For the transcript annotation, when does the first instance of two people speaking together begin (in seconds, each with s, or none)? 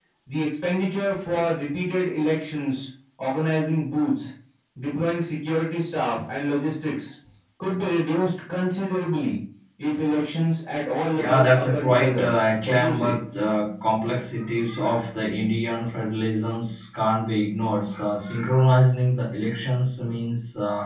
11.1 s